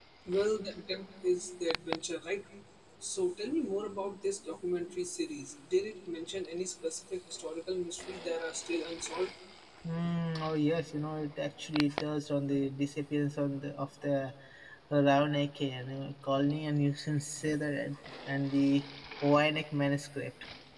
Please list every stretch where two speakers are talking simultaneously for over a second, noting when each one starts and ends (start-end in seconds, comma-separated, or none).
none